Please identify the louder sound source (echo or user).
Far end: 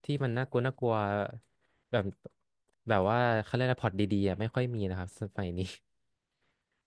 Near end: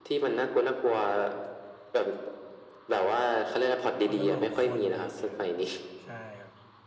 echo